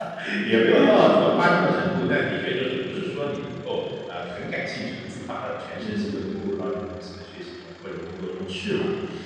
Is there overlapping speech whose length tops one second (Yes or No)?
Yes